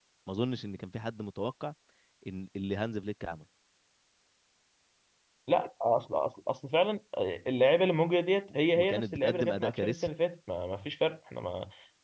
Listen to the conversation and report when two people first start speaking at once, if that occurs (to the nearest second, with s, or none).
9 s